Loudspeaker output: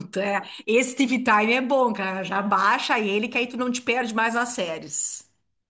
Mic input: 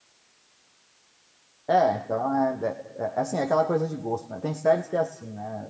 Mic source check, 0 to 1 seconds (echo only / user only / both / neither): neither